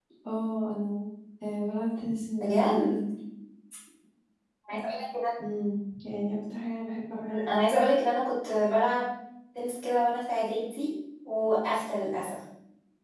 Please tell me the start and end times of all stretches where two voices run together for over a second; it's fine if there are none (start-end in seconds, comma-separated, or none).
none